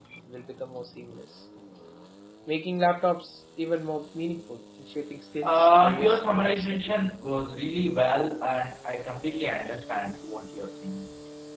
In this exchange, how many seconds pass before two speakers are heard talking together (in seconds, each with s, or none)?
5.4 s